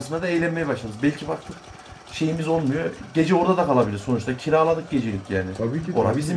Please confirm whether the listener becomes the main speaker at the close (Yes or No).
Yes